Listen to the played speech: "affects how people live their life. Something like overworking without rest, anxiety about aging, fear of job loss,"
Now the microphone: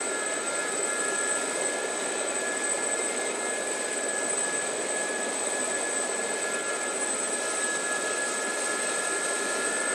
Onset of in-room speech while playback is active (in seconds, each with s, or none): none